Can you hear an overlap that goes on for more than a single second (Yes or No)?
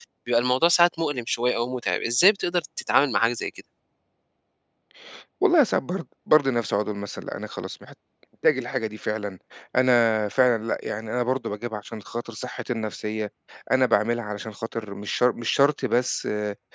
No